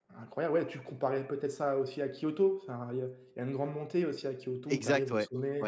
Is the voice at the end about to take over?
Yes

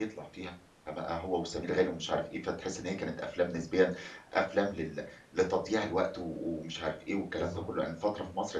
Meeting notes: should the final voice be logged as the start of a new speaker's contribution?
No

